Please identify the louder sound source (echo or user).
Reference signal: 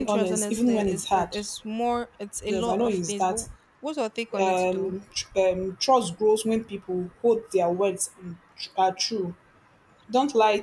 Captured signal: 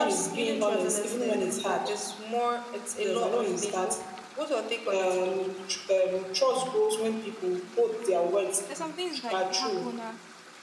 echo